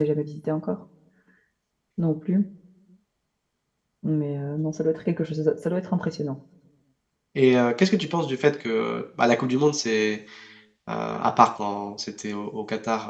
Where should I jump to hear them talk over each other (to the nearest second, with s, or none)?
none